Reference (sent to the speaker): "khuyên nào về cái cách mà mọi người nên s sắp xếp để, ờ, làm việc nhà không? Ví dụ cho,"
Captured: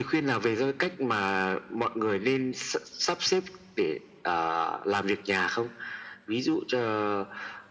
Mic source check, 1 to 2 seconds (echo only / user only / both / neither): echo only